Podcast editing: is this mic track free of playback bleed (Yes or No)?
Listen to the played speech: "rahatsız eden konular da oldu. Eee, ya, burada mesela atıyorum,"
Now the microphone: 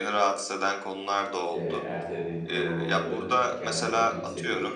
No